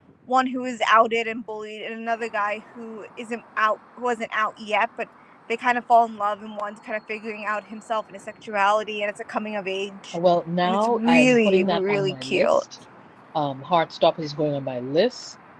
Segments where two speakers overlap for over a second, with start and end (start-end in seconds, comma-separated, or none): 10.6-12.5